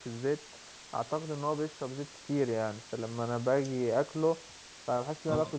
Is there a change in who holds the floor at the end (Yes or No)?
No